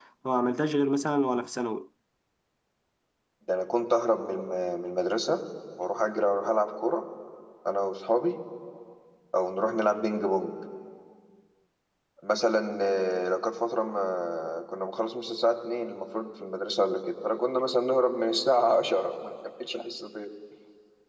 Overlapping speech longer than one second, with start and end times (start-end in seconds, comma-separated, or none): none